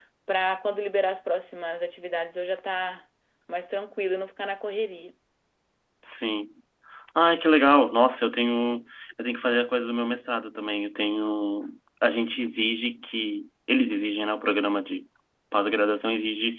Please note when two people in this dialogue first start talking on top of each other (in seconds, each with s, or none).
none